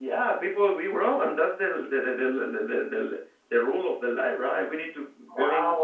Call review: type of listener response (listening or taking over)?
listening